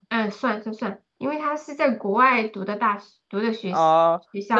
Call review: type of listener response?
taking over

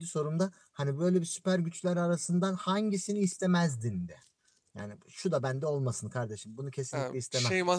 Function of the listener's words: taking over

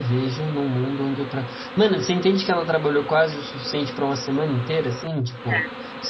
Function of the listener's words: listening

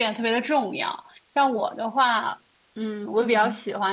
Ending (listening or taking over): listening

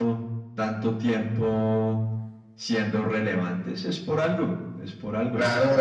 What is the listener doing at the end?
taking over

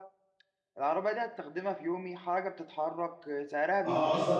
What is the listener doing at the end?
taking over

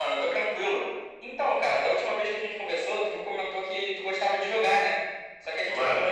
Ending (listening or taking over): taking over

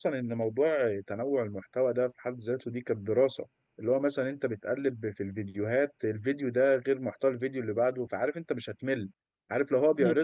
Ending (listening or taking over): listening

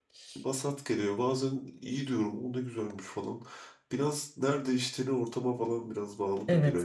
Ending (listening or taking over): taking over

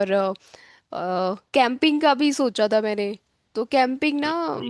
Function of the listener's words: listening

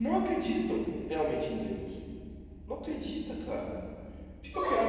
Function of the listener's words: taking over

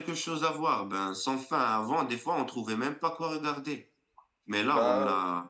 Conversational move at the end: listening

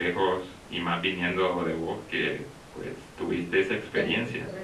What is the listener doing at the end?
taking over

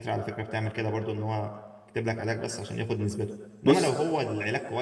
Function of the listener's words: listening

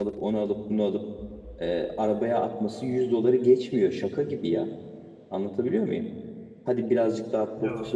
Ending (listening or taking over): listening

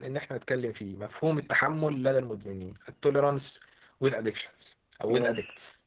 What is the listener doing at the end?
listening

